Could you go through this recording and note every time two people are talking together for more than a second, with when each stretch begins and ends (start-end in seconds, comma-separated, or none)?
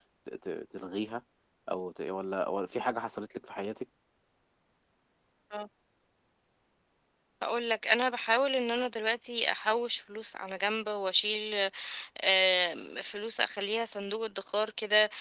none